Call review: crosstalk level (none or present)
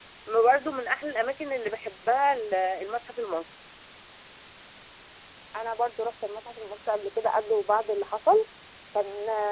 none